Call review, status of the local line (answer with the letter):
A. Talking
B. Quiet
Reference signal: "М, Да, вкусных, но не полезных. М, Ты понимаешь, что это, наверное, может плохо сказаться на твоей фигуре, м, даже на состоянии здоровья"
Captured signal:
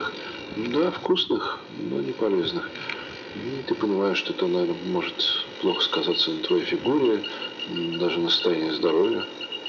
B